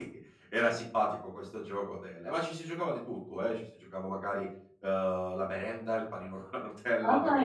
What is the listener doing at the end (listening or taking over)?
taking over